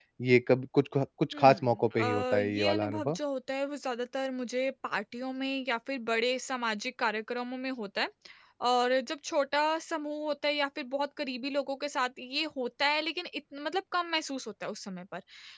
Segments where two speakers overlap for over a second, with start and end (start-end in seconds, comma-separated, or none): 1.3-3.2